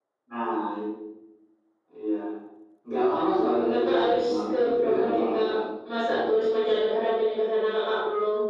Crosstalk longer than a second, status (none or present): present